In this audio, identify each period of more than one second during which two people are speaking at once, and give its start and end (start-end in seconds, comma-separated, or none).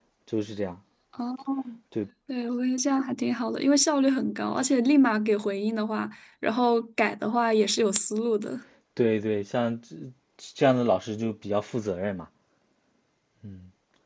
none